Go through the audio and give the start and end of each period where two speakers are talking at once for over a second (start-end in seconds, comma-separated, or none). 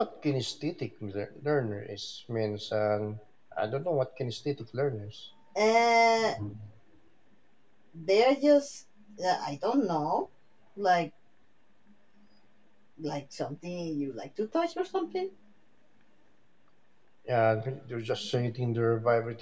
none